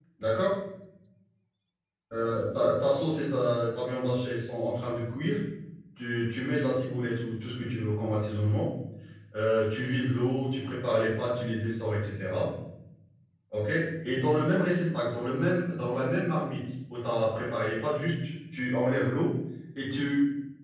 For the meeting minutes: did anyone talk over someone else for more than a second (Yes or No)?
No